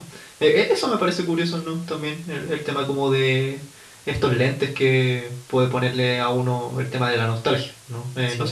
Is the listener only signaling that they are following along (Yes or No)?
No